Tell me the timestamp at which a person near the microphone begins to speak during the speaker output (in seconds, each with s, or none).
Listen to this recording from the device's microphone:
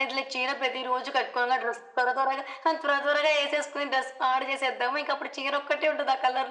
none